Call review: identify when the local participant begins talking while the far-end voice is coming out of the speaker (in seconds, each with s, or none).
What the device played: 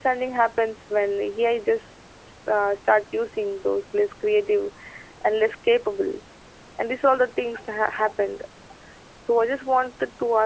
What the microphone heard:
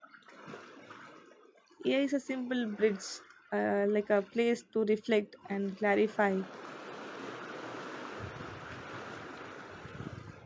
1.8 s